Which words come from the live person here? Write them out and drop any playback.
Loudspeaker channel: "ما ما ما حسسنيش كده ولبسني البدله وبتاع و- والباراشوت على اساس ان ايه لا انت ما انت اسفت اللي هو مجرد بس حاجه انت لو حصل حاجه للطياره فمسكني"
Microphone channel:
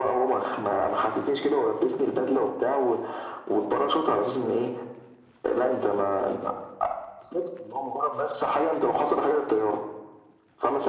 none

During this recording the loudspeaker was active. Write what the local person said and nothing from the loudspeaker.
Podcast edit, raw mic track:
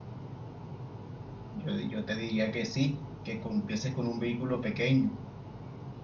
yo, yo te diría que sí, que empieces con un vehículo pequeño

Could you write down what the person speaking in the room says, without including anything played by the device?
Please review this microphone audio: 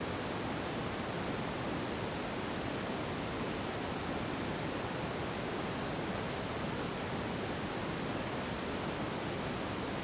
none

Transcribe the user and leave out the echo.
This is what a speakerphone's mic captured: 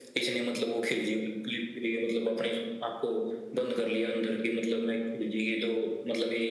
none

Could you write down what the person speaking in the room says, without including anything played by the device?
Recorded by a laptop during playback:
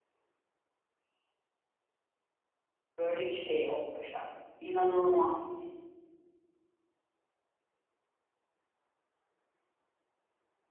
Böyle bir şey yok Başak. İnanılmaz.

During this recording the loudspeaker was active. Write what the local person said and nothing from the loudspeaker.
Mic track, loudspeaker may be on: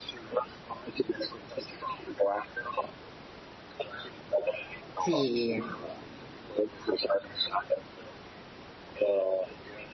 Sì.

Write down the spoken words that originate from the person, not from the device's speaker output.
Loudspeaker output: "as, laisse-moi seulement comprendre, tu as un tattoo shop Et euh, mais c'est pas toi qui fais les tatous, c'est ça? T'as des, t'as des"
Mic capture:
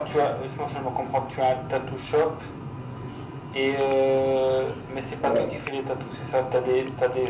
Ouais,

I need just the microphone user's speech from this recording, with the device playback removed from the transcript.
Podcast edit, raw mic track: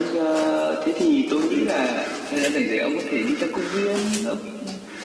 none

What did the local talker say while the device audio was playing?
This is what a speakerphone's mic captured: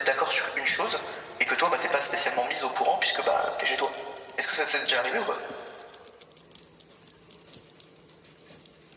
none

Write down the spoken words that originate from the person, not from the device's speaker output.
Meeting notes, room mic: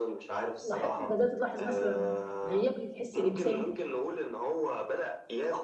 لاح... بدات تلاحظ مثلا غياب للحس الانساني

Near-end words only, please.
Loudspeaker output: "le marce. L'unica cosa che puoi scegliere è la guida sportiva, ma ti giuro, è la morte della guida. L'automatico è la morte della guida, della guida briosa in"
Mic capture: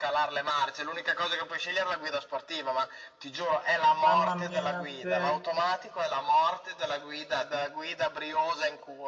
Mamma mia, sì, è

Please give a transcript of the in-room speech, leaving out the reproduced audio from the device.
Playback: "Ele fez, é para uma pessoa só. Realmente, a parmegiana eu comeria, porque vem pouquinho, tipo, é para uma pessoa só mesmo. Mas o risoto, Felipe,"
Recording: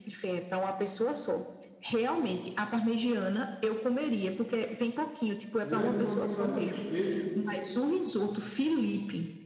E eu é que para ficar satisfeito,

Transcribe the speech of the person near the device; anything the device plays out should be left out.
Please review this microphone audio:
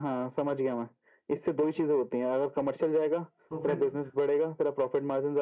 तो फिर तू-

